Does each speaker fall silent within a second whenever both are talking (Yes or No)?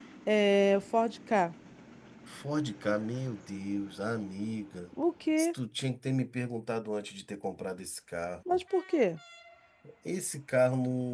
Yes